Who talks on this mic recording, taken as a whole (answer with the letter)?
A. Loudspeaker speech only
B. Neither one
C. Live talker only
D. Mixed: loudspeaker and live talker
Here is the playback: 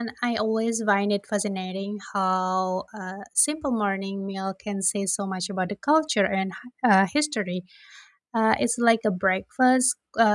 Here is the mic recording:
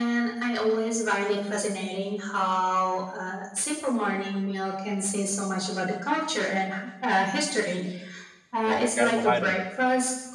D